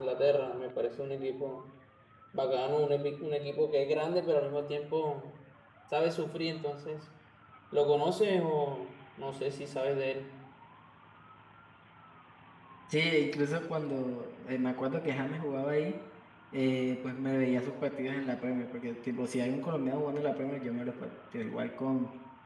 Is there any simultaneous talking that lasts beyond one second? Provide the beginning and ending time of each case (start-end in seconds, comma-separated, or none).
none